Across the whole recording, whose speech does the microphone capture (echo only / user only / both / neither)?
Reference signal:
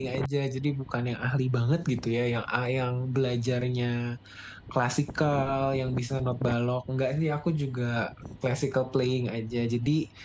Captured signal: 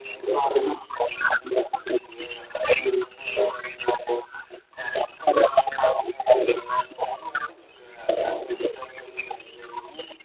echo only